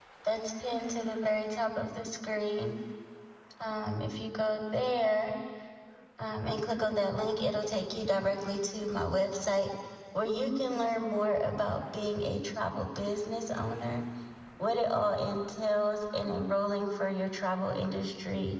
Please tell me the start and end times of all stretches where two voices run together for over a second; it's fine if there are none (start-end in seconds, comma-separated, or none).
none